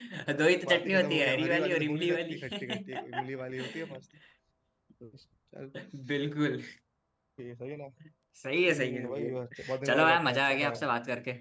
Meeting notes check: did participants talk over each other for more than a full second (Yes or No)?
Yes